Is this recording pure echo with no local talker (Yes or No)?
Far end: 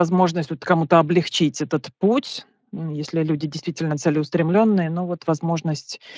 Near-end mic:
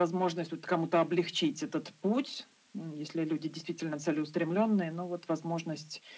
Yes